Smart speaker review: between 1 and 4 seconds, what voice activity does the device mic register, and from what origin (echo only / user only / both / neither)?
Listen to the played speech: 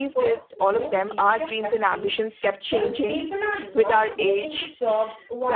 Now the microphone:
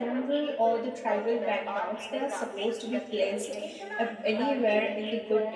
both